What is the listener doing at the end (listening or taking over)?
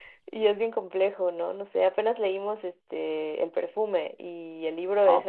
listening